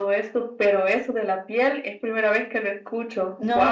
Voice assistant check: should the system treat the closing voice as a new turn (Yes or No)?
Yes